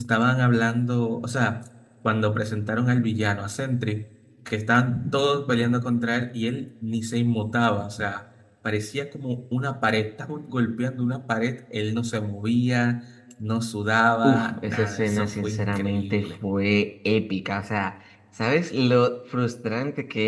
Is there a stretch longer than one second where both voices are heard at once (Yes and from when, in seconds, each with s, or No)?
Yes, from 14.2 s